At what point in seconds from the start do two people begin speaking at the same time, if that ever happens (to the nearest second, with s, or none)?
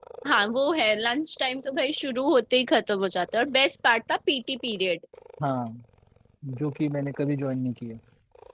none